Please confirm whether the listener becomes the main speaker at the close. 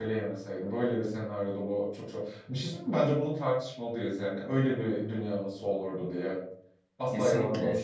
No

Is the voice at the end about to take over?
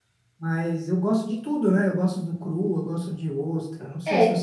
Yes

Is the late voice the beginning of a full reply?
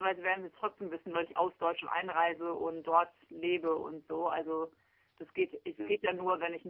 No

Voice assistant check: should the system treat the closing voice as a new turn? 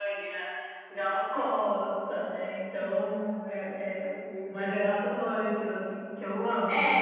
Yes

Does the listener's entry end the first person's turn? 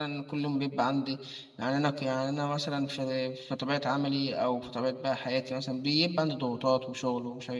No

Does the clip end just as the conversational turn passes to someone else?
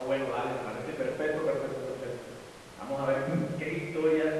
No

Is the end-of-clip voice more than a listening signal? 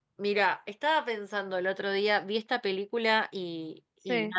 No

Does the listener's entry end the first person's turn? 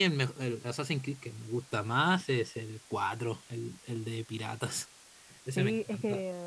Yes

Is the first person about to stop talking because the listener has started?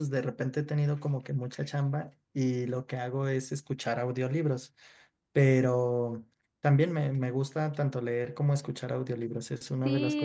Yes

